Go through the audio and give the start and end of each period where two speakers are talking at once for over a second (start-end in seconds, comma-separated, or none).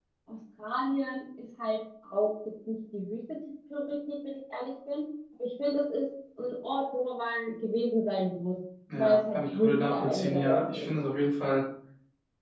8.9-11.0